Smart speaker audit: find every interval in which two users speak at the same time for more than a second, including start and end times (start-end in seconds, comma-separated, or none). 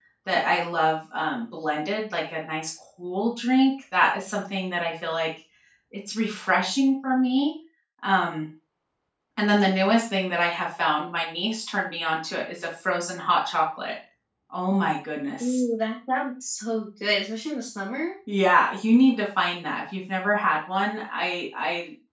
none